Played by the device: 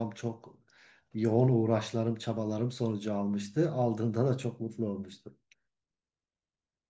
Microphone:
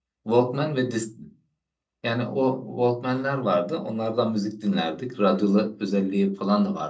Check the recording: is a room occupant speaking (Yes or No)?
Yes